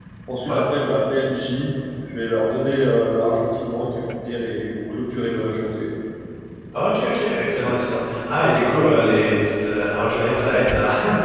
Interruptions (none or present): none